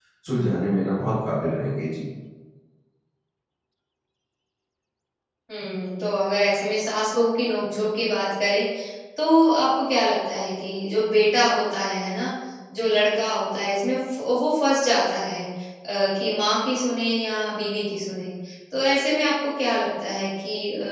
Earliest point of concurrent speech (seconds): none

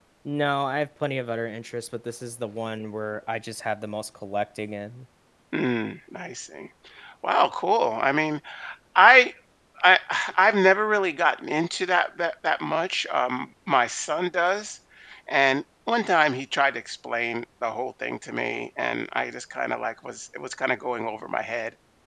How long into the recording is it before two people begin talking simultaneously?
none

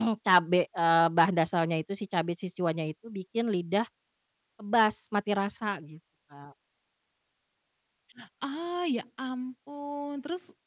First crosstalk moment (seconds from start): none

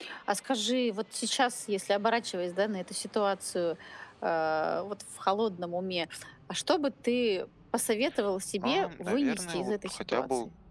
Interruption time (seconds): 9 s

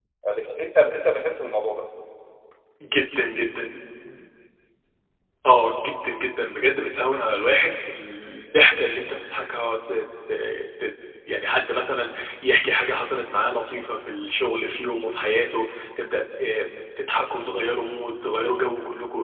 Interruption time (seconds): none

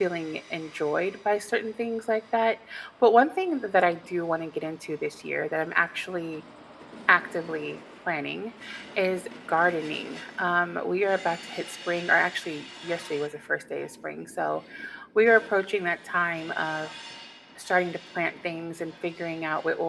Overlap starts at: none

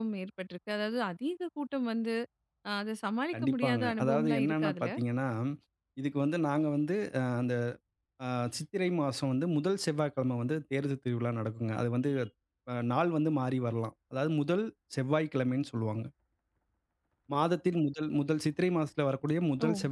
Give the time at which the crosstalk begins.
3 s

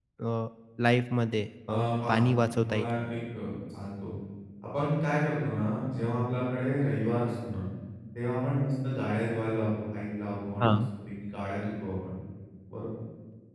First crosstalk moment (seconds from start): 2 s

